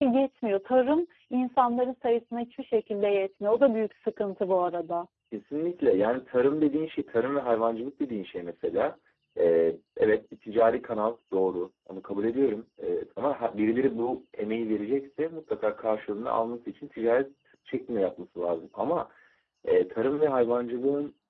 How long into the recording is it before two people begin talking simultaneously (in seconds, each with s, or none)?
none